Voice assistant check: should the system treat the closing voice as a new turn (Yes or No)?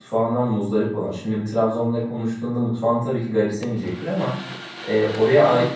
No